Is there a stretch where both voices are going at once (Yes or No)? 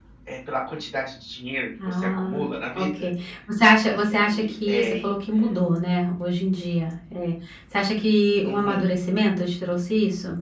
Yes